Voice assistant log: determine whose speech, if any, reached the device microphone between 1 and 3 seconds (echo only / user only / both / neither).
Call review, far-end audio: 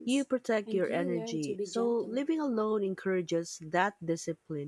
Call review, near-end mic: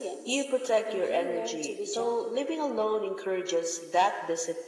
echo only